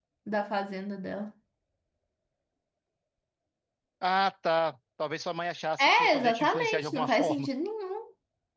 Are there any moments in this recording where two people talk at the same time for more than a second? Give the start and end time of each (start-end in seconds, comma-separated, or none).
5.8-7.5